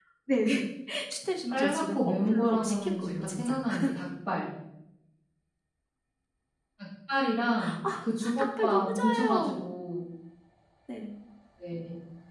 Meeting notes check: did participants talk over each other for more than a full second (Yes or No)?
Yes